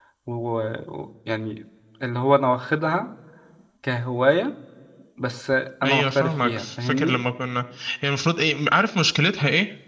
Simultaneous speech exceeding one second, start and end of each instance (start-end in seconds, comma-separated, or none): 5.8-7.2